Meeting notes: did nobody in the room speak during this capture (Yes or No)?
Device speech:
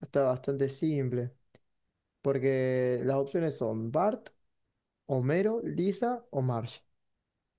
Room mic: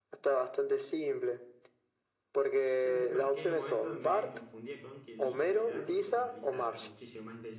No